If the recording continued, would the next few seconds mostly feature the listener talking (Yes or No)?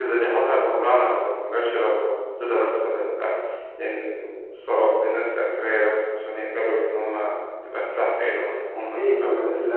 Yes